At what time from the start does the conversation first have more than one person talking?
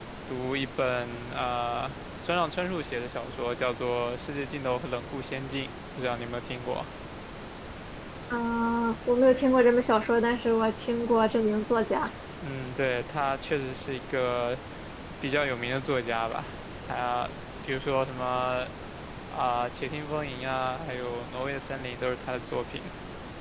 none

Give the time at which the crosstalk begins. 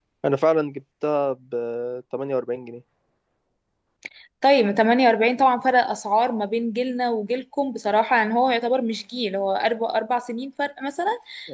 none

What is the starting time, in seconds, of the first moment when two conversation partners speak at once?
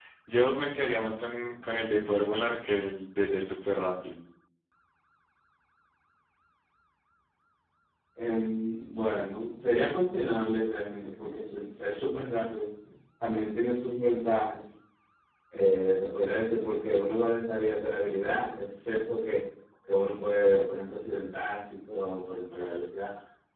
none

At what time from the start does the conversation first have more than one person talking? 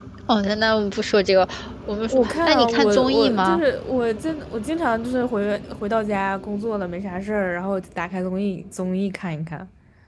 2.1 s

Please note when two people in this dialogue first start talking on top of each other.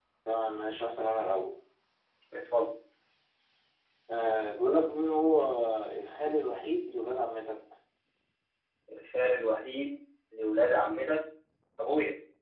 none

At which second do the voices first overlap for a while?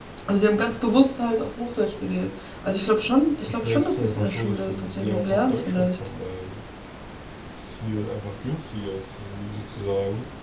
3.5 s

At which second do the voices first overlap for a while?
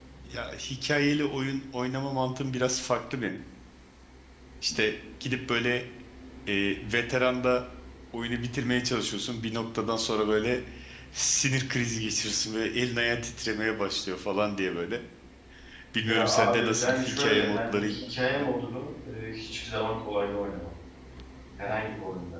16.0 s

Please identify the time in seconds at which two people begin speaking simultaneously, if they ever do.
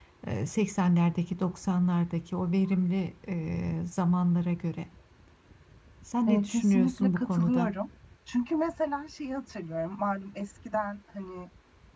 6.3 s

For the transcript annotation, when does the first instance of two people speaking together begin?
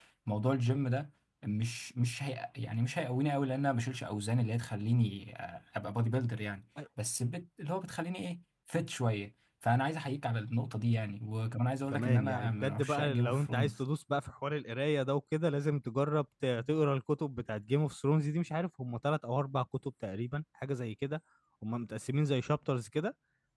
11.9 s

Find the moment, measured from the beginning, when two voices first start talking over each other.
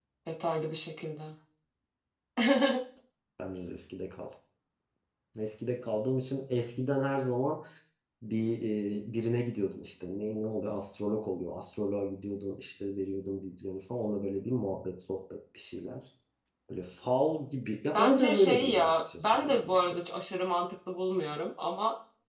17.9 s

